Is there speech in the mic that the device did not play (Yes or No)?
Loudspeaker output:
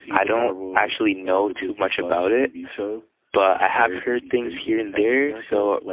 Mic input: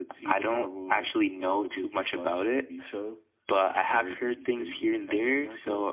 No